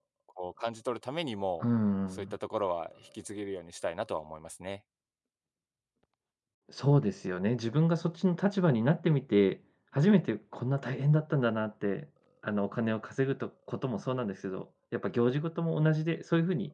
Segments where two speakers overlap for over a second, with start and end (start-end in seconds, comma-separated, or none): none